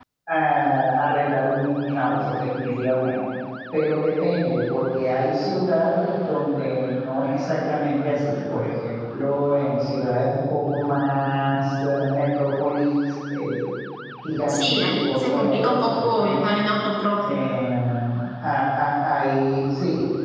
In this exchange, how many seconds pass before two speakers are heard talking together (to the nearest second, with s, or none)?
14 s